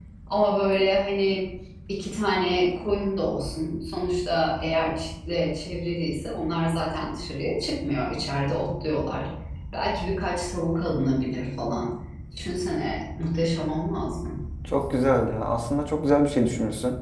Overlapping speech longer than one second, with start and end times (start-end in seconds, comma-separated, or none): none